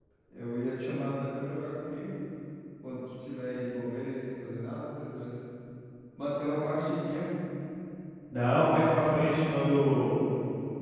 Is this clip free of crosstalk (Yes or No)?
Yes